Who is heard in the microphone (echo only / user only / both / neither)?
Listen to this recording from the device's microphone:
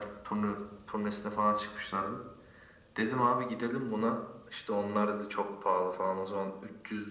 echo only